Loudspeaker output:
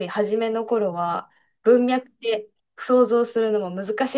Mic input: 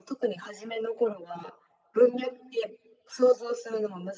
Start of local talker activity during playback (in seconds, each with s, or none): none